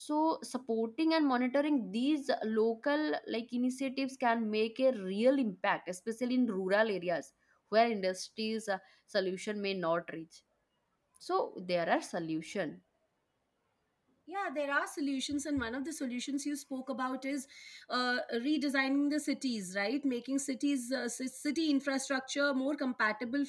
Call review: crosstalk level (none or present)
none